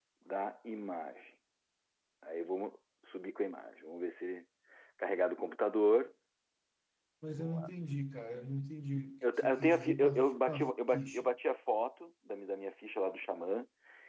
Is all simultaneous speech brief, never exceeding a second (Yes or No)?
No